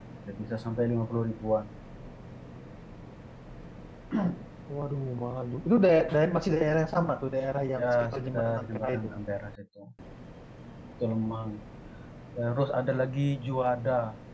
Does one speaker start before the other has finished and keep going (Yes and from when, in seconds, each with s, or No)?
Yes, from 7.8 s